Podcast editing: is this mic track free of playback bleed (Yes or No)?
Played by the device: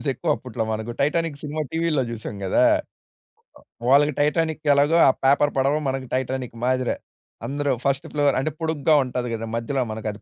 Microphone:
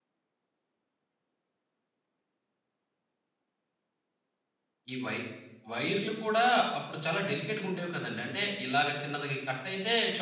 Yes